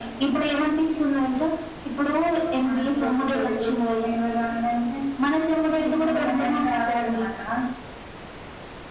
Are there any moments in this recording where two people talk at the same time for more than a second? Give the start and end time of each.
2.6-4.0, 5.8-7.2

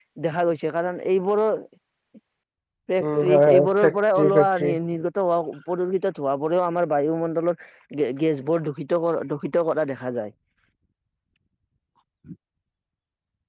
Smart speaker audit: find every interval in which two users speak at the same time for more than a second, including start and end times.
3.2-4.5

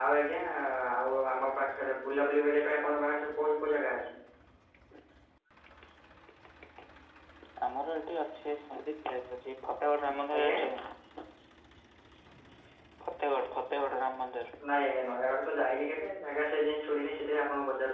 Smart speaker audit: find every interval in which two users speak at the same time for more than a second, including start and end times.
none

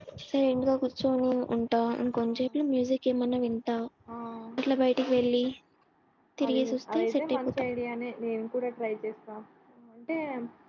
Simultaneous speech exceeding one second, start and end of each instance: 6.4-7.6

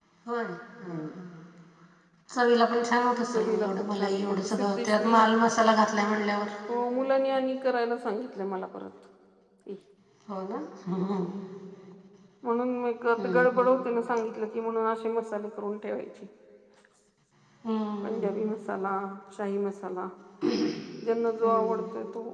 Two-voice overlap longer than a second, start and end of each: 3.3-5.2

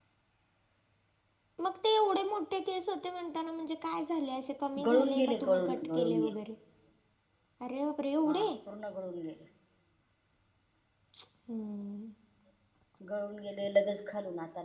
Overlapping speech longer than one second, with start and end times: 4.8-6.2

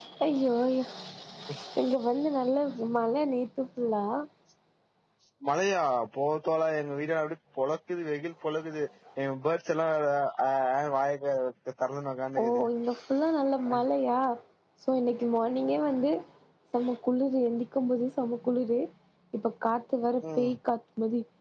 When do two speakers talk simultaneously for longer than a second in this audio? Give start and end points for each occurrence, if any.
none

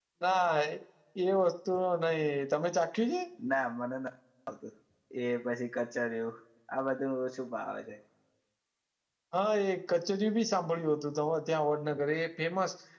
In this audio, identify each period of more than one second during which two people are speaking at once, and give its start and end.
none

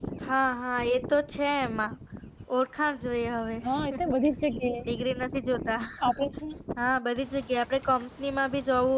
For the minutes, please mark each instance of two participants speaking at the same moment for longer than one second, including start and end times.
none

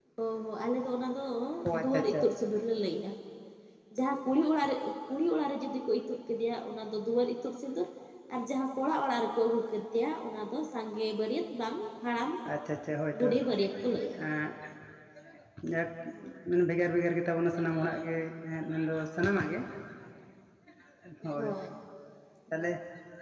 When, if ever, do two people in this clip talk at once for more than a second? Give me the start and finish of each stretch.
none

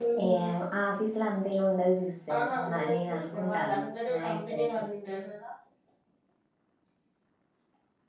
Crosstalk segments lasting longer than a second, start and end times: 2.3-4.8

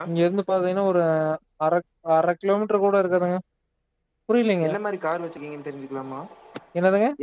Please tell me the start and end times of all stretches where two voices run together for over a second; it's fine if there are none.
none

